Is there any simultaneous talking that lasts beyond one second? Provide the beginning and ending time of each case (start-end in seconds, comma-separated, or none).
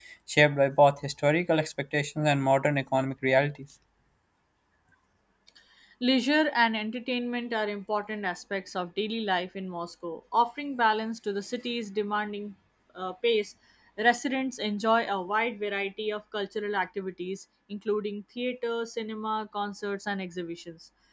none